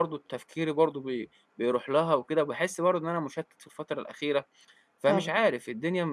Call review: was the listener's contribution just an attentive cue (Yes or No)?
Yes